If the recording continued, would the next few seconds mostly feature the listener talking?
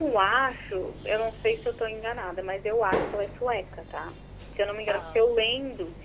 No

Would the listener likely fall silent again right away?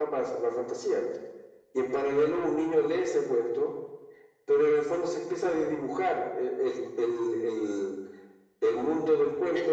Yes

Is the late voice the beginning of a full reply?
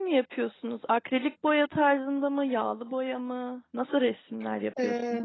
Yes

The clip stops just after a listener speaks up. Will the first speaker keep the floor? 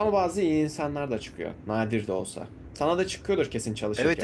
No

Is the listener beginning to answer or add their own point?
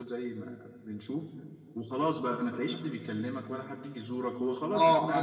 Yes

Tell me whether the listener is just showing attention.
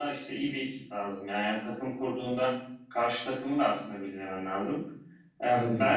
Yes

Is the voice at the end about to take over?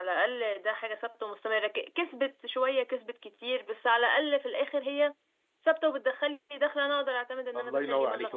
Yes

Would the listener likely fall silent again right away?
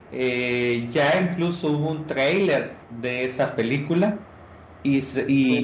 Yes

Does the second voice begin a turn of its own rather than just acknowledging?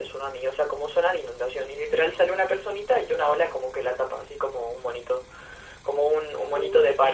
No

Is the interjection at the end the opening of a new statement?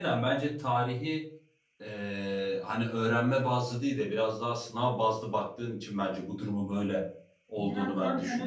Yes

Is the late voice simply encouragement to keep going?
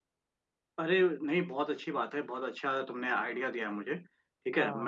Yes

